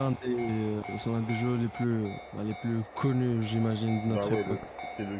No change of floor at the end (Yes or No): No